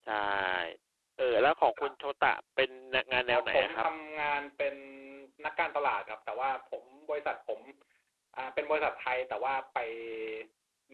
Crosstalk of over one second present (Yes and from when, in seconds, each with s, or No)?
No